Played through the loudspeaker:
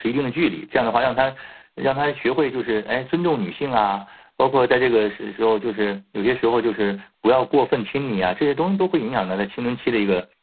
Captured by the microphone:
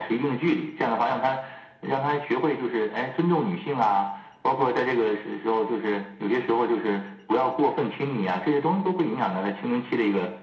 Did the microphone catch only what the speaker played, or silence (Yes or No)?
Yes